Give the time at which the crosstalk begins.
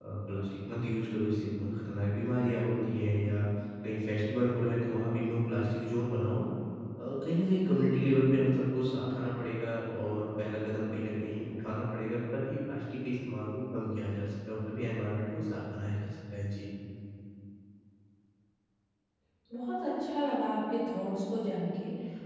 none

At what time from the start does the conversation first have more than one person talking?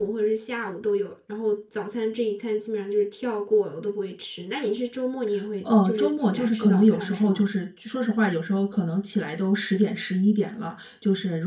5.6 s

